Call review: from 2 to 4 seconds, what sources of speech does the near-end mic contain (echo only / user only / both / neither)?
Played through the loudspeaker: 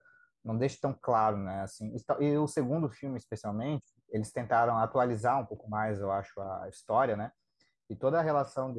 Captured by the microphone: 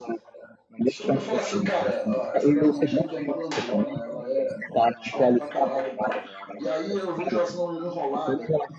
both